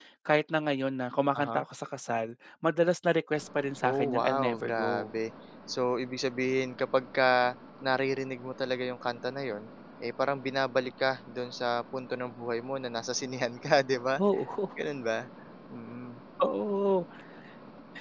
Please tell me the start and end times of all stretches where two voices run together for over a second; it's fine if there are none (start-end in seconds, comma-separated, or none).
3.8-5.1